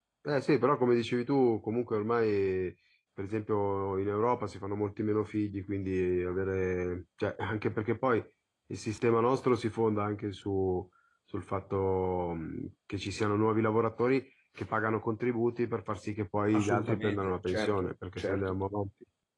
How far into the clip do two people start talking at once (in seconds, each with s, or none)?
16.5 s